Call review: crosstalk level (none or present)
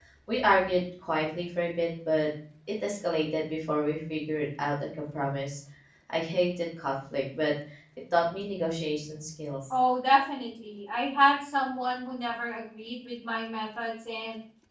none